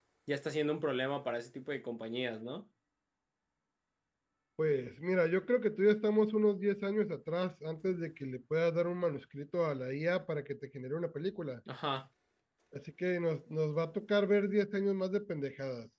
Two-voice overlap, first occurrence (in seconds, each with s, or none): none